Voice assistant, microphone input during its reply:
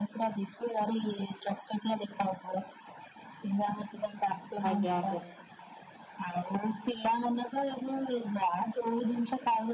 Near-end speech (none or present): present